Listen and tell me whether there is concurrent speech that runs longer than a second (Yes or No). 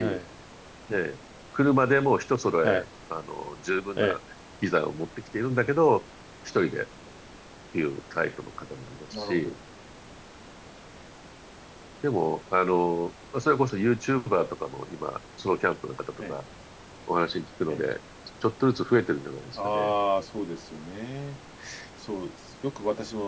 No